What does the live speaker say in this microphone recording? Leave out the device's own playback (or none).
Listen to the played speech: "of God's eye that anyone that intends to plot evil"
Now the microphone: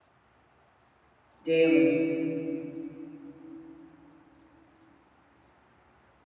daily,